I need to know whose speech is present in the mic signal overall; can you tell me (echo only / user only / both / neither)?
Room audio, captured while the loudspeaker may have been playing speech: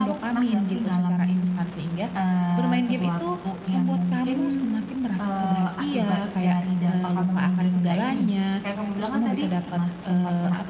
both